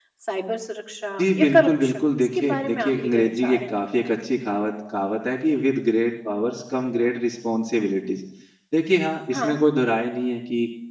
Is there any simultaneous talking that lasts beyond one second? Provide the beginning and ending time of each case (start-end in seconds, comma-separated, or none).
1.2-3.7